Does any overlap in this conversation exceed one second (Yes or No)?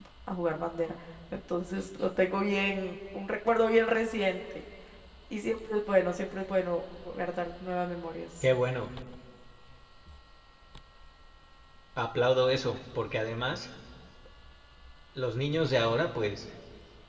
No